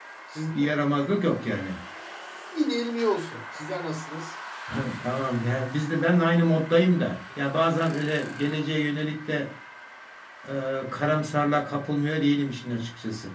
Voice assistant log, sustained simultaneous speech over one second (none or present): none